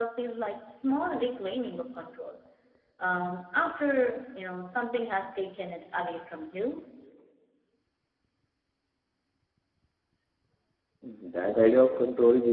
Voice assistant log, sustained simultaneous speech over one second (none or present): none